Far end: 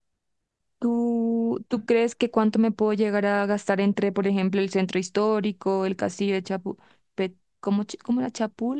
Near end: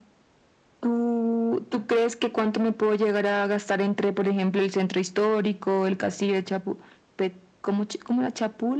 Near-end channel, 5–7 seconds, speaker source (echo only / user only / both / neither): echo only